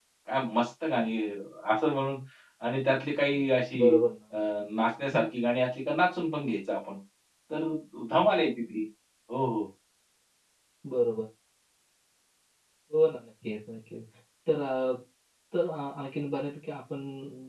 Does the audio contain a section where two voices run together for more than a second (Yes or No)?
No